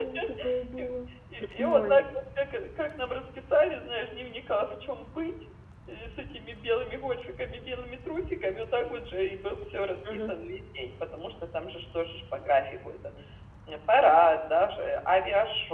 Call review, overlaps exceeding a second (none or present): none